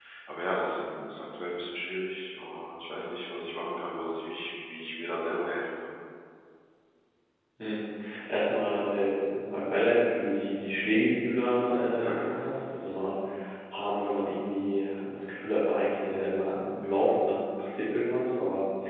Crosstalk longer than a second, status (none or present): none